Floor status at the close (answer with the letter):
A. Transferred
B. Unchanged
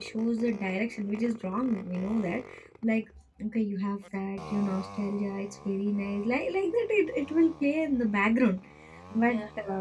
B